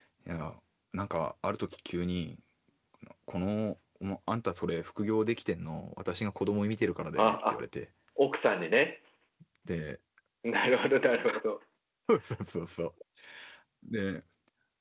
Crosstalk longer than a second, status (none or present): none